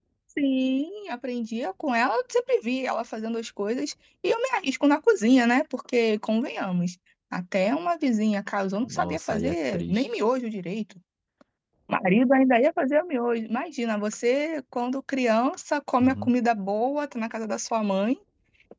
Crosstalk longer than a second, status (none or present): present